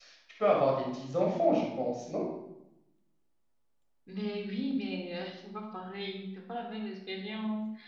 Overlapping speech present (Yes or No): No